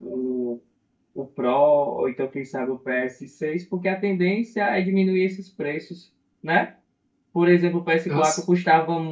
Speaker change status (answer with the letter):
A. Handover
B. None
B